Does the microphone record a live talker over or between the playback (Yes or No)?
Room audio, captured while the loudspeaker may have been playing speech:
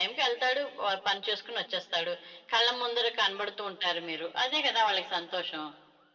No